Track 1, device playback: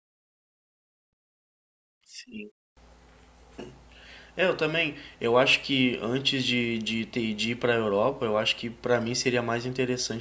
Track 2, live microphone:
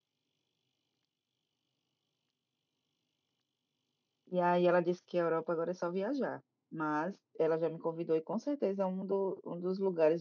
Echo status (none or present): none